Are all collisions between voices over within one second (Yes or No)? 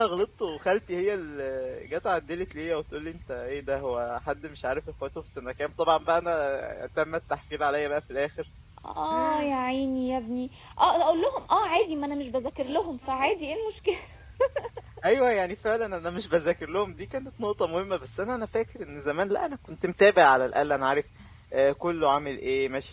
Yes